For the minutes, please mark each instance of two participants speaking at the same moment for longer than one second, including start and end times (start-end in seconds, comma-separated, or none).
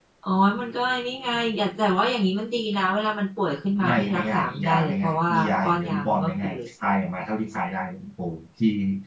3.8-6.6